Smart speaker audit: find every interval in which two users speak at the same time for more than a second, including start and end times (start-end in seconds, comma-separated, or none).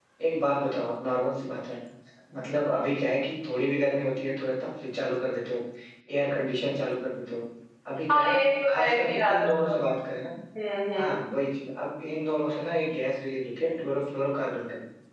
8.1-9.7